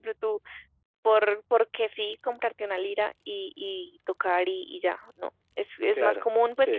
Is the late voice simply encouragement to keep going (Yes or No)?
Yes